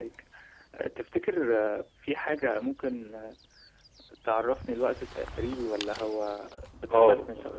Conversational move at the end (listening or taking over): taking over